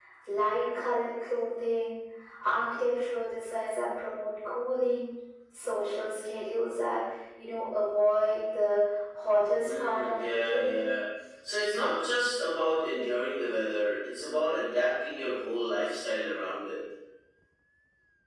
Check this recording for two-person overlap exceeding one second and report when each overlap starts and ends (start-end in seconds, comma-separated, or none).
9.6-10.9